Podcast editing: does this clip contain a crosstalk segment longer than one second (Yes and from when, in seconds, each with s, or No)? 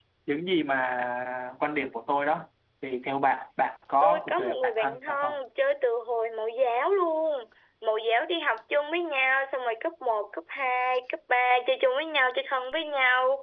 Yes, from 4.0 s